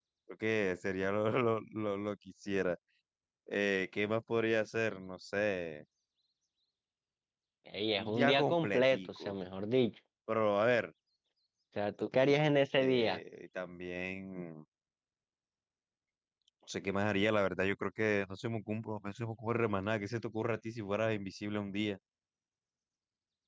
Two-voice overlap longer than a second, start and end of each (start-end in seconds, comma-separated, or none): 8.0-9.3